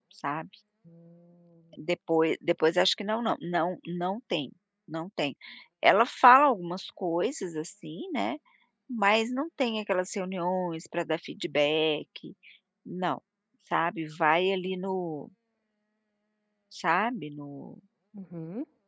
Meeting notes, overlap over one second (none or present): none